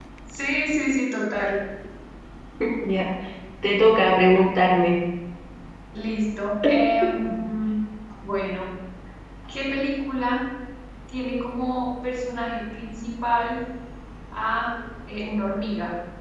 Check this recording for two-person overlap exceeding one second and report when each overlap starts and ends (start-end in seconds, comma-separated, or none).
none